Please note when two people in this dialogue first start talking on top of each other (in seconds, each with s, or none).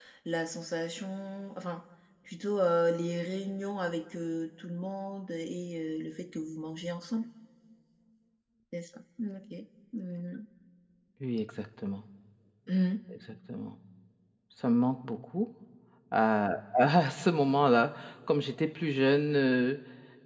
none